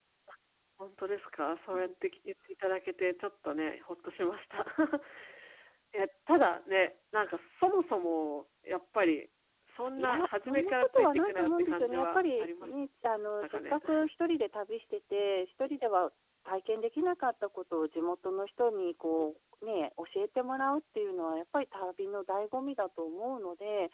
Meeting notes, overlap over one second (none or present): present